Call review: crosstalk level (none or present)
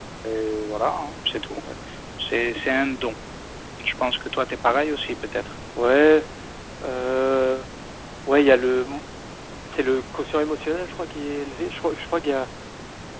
none